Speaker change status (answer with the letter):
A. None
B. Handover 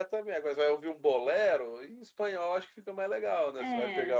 B